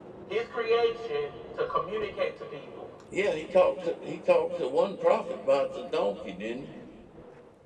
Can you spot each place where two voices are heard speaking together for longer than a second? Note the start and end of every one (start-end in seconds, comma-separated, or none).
none